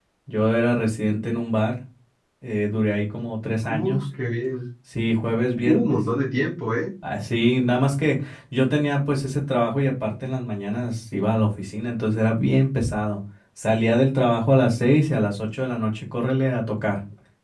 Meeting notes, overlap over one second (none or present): none